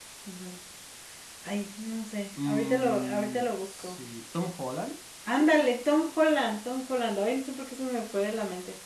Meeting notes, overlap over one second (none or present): present